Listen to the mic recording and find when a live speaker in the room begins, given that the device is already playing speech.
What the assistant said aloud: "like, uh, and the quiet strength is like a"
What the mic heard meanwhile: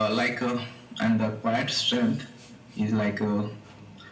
none

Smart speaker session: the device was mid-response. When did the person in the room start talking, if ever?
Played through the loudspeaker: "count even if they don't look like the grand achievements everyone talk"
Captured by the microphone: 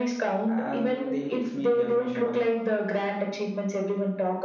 0.5 s

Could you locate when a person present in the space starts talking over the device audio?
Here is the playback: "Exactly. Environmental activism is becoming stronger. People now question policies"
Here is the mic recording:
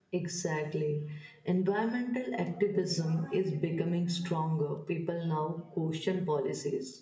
none

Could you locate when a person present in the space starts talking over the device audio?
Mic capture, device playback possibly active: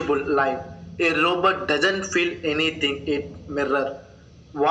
none

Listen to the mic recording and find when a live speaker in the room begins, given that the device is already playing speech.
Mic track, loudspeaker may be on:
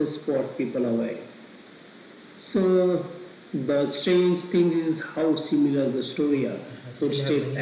6.3 s

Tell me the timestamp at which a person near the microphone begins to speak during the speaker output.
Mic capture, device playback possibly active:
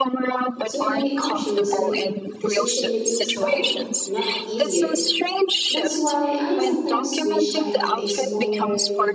0.6 s

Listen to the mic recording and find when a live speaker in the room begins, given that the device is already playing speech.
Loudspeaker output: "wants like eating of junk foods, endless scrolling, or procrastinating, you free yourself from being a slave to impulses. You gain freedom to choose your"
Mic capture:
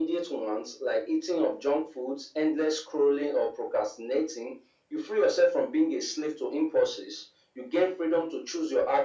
none

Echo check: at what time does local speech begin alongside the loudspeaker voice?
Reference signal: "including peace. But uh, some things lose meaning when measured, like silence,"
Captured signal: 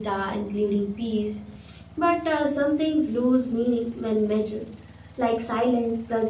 none

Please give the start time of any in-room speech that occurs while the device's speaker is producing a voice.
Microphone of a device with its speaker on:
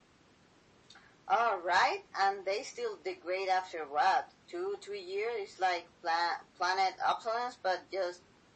none

